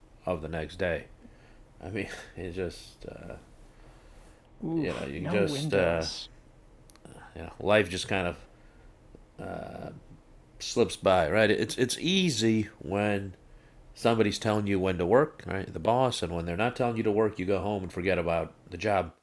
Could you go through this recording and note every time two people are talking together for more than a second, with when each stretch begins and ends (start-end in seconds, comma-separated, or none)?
4.8-6.1